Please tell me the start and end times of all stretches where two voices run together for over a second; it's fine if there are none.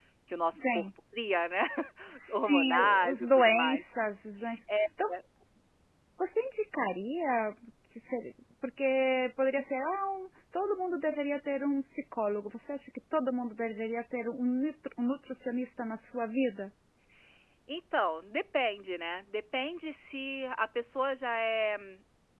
2.3-3.8

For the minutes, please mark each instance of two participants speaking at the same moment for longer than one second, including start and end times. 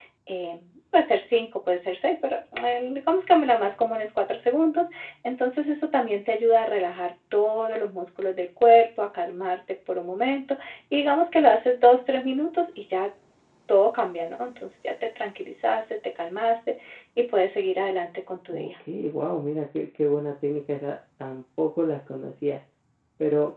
none

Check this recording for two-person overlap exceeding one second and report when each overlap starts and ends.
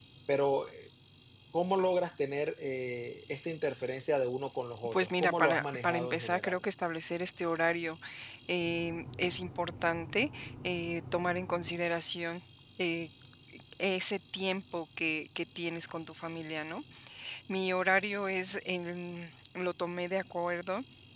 4.9-6.6

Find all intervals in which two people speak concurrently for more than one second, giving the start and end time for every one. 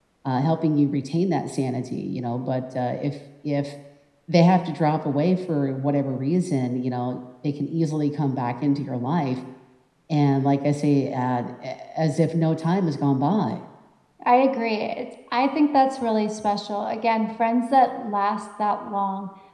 none

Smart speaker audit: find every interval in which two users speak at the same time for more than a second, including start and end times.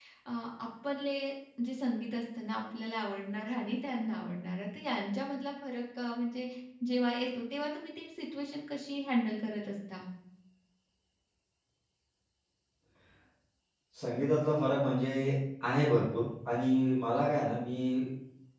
none

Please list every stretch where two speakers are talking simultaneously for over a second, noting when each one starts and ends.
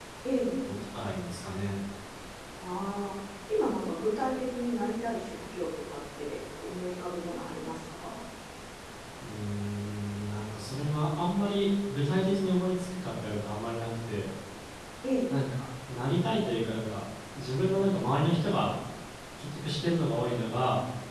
none

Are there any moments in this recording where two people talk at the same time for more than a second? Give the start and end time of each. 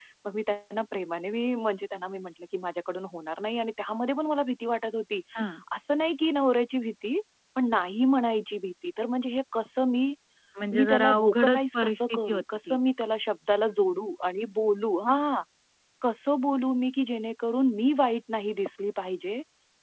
10.8-12.8

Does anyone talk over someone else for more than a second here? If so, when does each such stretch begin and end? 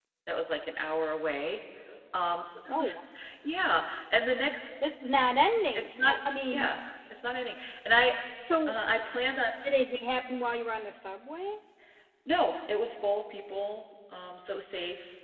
none

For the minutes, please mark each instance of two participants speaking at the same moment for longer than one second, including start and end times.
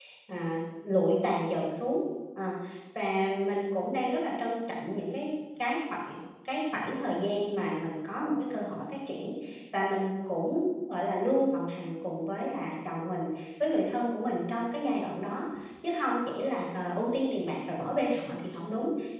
none

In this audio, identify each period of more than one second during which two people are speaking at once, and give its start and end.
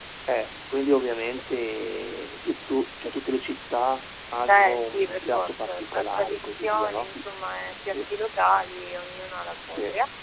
4.4-7.1

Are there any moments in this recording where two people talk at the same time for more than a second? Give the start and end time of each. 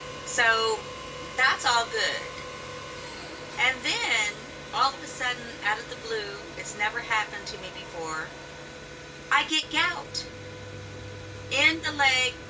none

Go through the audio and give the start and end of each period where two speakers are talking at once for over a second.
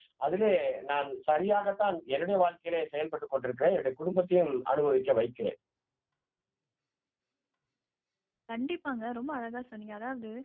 none

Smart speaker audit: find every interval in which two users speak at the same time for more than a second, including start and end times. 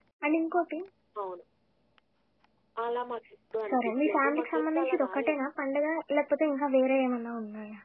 3.7-5.4

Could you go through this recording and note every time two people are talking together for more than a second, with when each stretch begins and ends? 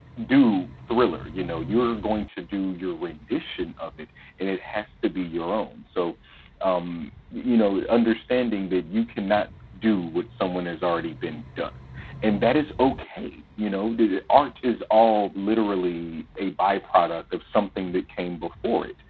none

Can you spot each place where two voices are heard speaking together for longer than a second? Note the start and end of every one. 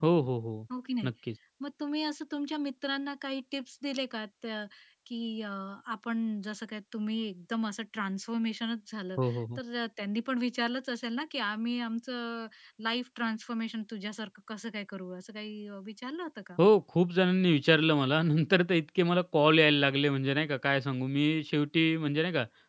none

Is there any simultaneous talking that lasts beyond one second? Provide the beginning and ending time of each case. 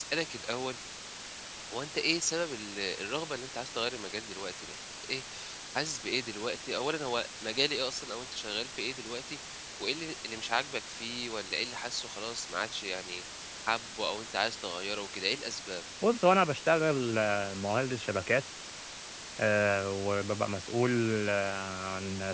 none

